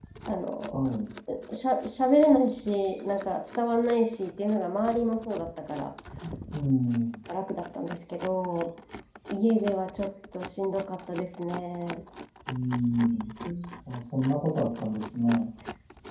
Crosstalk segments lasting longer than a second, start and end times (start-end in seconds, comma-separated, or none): none